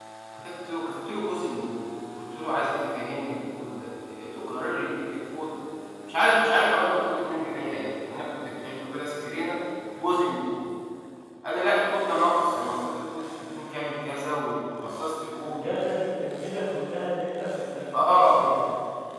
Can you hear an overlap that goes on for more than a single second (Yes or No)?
No